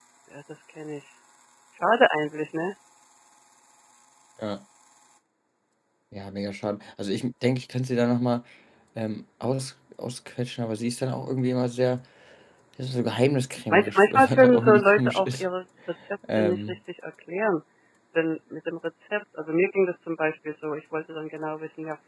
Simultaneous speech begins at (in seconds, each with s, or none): 13.7 s